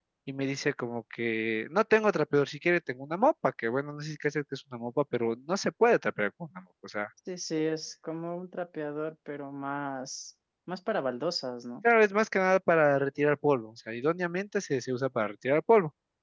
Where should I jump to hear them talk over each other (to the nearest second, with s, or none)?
none